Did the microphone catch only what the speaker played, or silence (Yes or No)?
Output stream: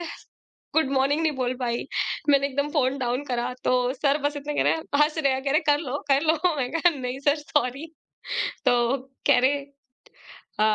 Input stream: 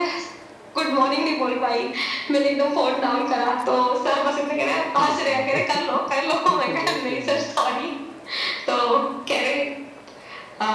No